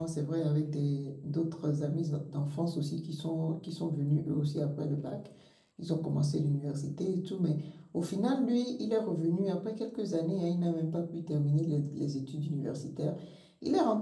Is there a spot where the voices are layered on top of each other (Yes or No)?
No